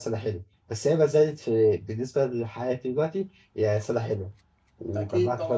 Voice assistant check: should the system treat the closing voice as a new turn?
No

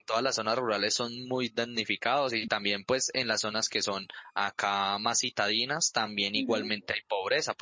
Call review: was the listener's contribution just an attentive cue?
Yes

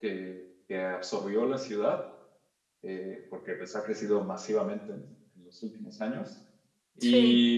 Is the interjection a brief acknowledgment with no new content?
Yes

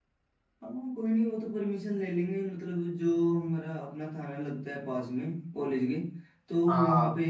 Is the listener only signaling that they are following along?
Yes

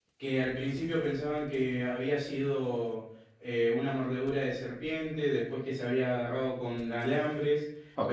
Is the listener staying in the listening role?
No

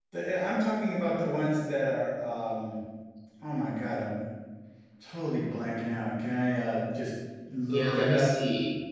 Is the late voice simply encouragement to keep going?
No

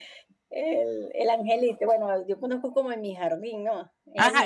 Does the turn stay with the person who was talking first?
No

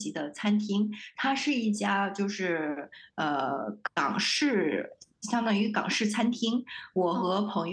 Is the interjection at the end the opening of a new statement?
No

